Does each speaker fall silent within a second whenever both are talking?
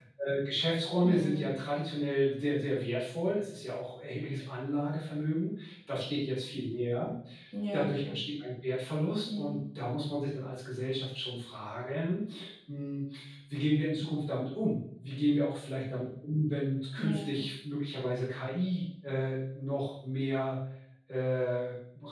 Yes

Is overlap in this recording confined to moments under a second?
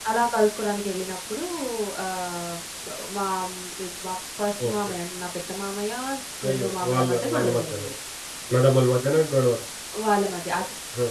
No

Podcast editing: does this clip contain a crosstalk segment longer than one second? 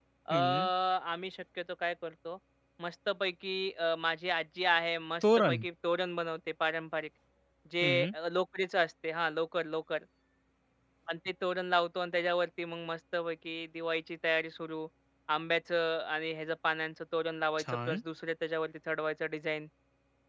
No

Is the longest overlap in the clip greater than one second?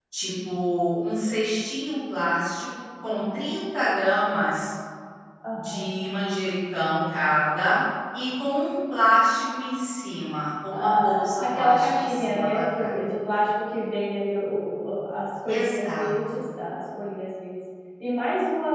Yes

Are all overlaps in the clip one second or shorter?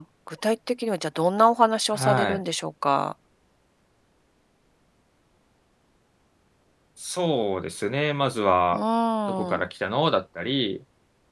Yes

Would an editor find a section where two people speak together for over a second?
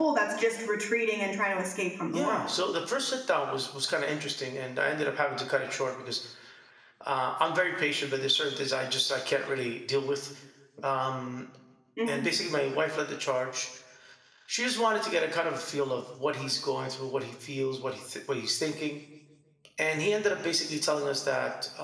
No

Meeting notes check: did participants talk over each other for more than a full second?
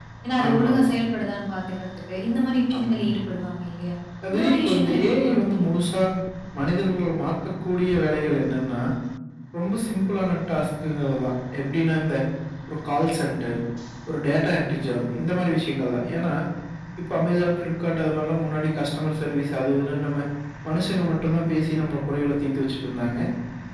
Yes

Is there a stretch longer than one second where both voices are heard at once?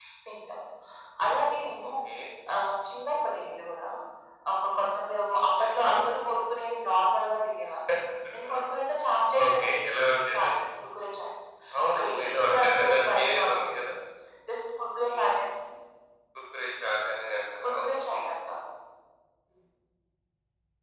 Yes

